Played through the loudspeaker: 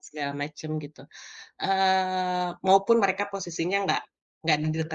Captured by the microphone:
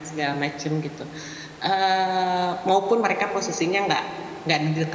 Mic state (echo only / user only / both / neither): echo only